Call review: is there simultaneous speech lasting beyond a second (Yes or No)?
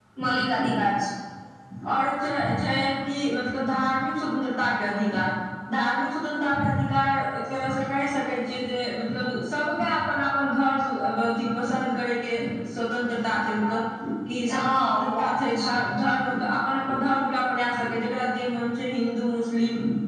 Yes